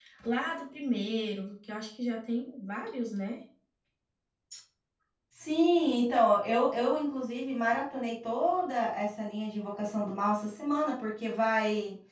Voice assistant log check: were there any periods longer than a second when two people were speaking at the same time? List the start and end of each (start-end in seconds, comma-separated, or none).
none